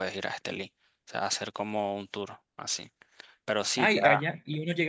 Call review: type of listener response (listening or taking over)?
taking over